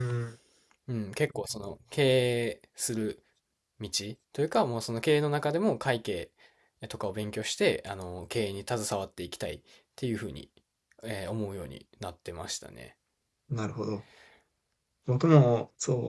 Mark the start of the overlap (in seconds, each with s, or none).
none